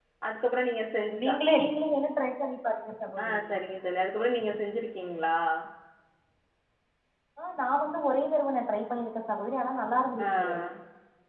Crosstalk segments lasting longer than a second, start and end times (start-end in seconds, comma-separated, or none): none